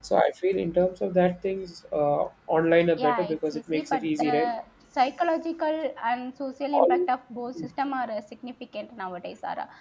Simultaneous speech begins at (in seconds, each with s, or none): 3.0 s